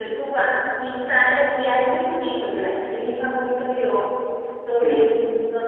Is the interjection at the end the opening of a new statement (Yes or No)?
No